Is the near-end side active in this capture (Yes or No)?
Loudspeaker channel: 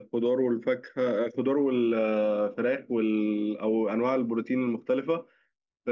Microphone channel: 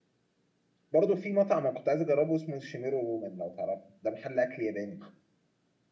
Yes